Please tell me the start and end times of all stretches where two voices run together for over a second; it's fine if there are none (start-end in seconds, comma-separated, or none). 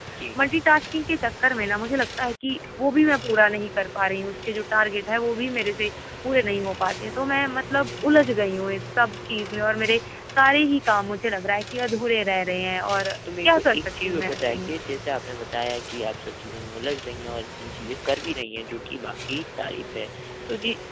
13.4-15.0